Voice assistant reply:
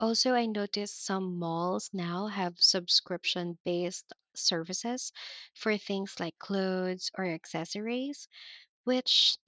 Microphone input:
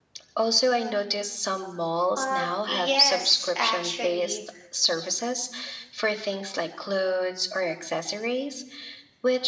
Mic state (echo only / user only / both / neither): both